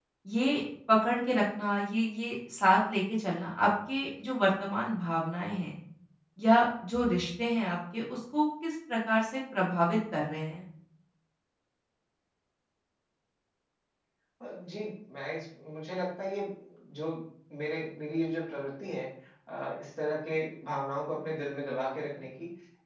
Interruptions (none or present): none